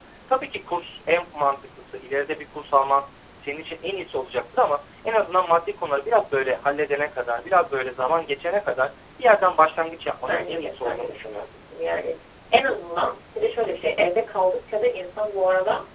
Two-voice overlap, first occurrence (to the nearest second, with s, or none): 10 s